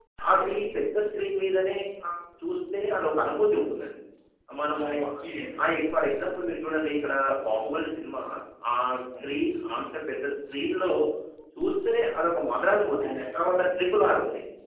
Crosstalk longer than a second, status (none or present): present